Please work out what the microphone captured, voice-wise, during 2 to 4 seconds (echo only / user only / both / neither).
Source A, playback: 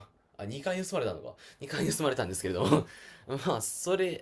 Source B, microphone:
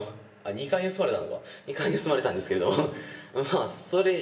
echo only